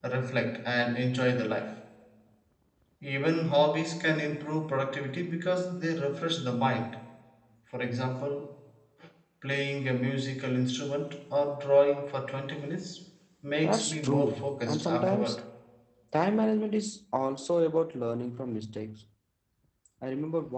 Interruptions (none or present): present